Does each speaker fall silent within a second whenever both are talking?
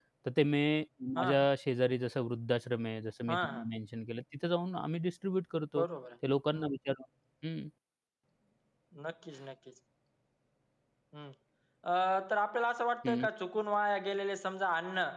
Yes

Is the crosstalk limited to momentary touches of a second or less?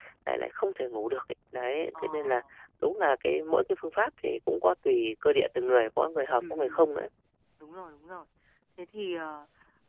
Yes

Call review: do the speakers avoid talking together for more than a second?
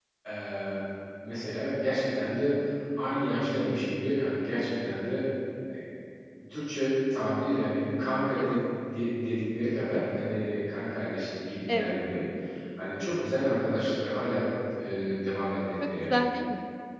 Yes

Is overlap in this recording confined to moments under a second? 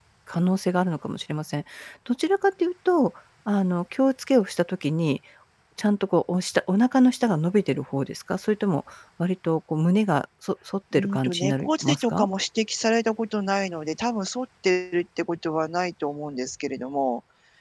No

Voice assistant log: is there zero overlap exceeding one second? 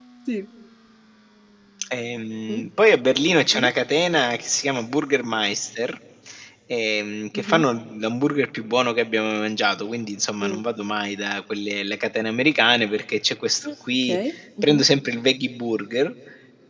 Yes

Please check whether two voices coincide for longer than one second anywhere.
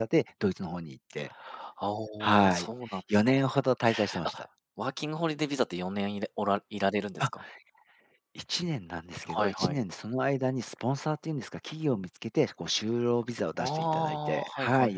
Yes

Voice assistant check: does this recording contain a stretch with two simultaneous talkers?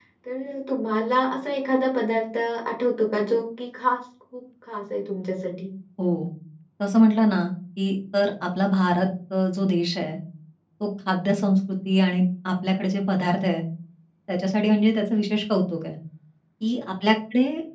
No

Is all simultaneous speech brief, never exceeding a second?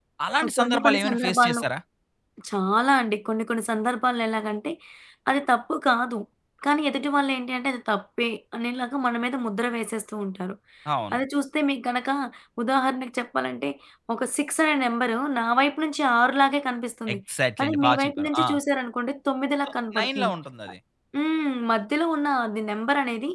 No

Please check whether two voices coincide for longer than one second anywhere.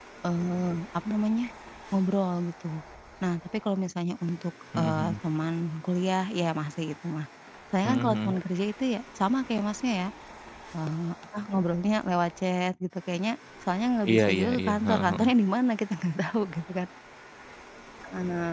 Yes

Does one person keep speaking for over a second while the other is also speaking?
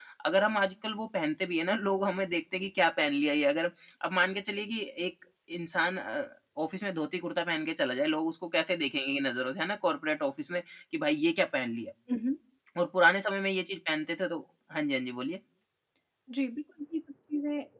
No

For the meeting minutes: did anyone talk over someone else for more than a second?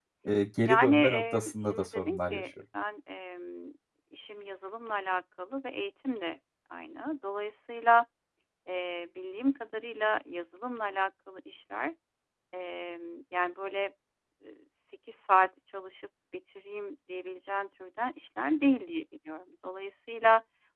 Yes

